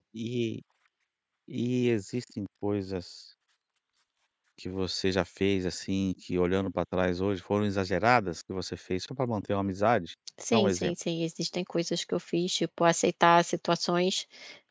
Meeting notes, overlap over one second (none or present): none